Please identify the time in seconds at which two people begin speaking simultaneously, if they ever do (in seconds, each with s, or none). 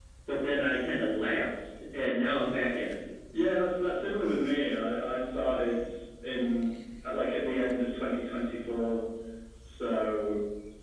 none